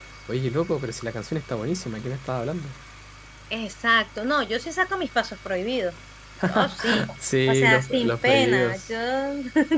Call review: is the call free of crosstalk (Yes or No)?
No